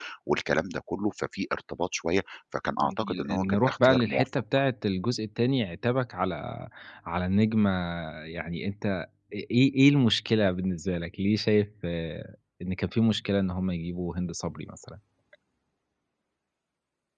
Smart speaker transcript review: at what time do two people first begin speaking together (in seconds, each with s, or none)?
2.8 s